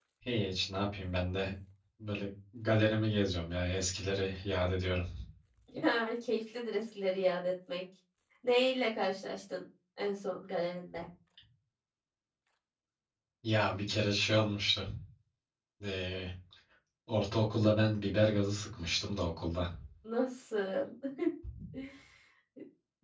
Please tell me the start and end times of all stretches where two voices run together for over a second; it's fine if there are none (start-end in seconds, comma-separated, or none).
none